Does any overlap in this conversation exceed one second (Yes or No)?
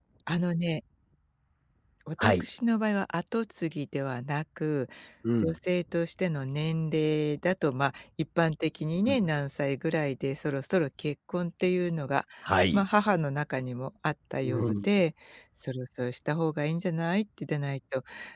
No